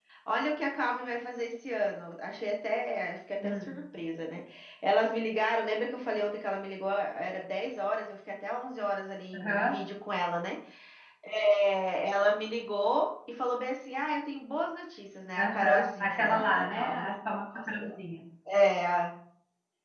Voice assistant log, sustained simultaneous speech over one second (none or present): present